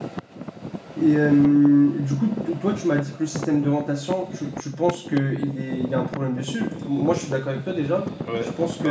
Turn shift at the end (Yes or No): Yes